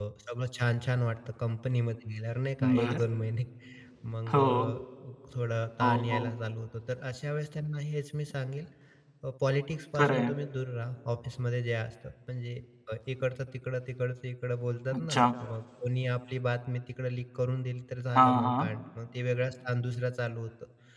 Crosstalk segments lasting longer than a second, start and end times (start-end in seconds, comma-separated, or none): none